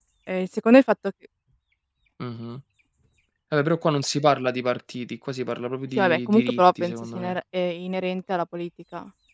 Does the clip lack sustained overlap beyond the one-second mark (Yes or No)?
No